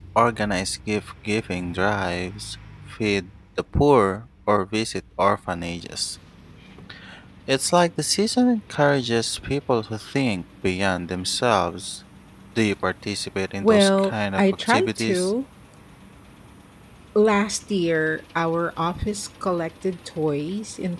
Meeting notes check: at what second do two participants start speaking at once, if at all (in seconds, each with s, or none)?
13.6 s